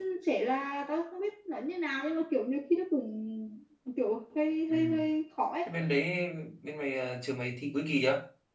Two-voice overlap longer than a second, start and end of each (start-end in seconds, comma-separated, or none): none